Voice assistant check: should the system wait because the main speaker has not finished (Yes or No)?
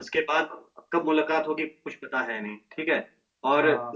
Yes